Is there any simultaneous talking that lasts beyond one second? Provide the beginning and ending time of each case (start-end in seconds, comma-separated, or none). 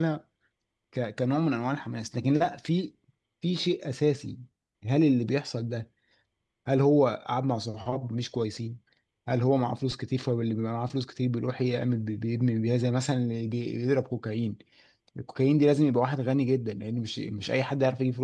none